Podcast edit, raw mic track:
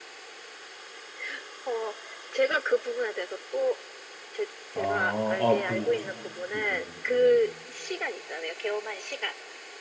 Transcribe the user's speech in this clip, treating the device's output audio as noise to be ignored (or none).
아, 아, 그, 저- 그러세요. 어,